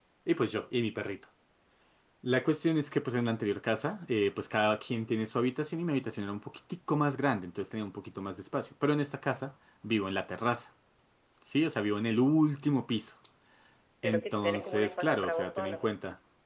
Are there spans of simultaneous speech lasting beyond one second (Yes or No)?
Yes